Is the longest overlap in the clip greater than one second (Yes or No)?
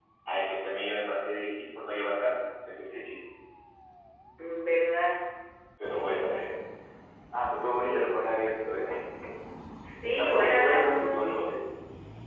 Yes